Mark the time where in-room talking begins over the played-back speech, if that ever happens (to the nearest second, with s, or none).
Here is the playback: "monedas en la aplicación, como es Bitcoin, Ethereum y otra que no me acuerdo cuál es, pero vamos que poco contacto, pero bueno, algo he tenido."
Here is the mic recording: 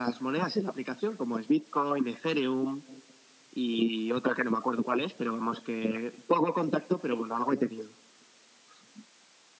none